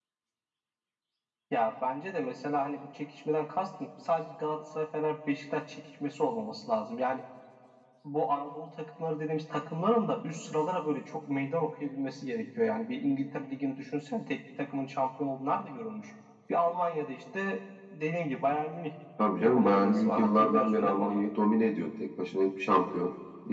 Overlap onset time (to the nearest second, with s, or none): 19 s